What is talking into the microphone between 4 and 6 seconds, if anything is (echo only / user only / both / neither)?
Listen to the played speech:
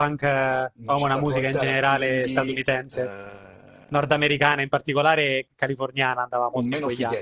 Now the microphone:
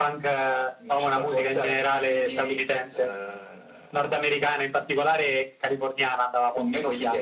echo only